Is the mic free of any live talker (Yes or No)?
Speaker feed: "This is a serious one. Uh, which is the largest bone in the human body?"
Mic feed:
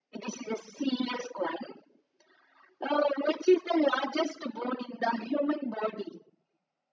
Yes